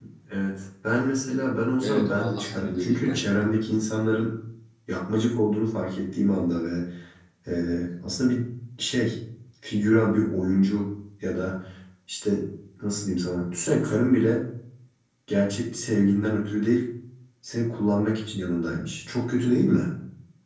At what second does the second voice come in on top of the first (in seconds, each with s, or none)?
1.8 s